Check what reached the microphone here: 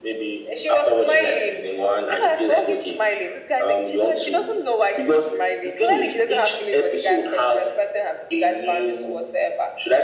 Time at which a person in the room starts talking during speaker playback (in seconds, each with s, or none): none